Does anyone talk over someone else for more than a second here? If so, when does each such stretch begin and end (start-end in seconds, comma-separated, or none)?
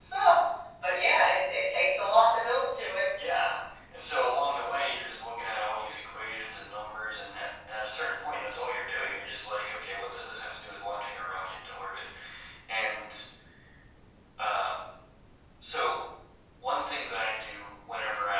none